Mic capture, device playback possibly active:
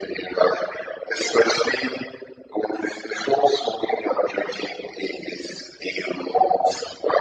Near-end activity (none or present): none